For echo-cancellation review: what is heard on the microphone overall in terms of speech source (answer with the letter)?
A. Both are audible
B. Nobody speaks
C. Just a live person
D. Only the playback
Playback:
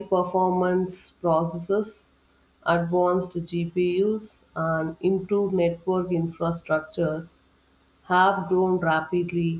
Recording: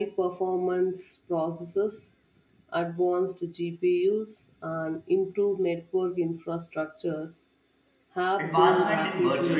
A